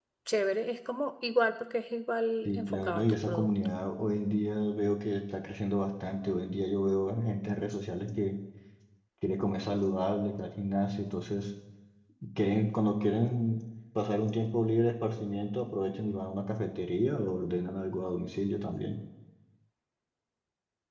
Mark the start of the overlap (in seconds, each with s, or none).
2.5 s